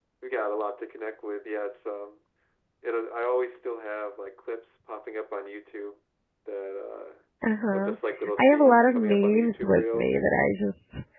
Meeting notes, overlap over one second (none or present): present